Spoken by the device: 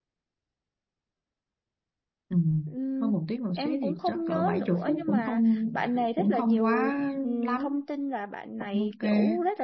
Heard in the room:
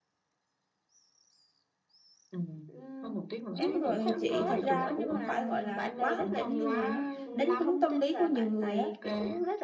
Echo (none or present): present